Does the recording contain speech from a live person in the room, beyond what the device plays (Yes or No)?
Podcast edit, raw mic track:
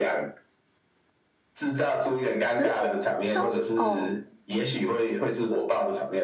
Yes